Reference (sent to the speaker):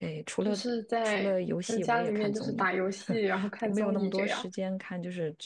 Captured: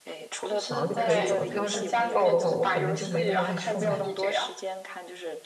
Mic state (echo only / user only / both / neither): both